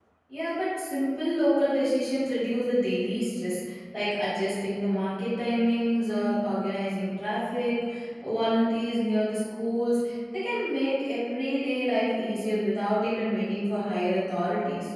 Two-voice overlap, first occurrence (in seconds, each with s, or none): none